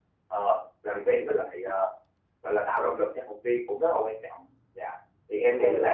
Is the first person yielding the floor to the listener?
Yes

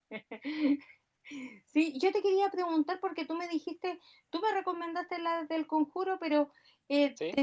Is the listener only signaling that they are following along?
Yes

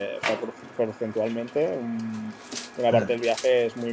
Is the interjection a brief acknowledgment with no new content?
Yes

